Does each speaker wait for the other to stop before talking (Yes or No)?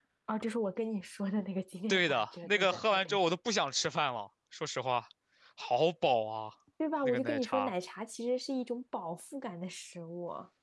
No